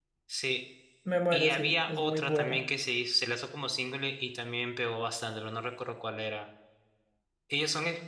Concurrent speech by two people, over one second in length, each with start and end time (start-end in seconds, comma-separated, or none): 1.3-2.6